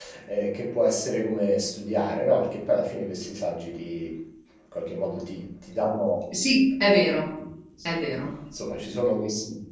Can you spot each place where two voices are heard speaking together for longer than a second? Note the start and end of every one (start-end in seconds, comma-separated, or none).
none